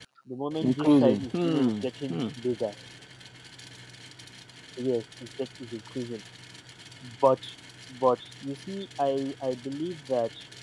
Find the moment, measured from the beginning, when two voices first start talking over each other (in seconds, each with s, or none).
0.6 s